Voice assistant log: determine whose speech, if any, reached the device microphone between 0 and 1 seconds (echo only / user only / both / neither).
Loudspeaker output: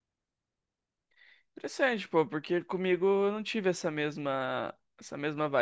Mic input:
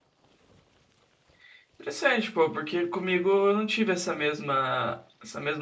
neither